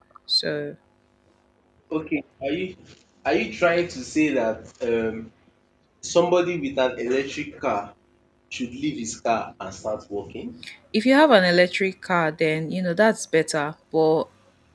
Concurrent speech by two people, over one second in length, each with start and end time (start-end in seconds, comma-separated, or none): none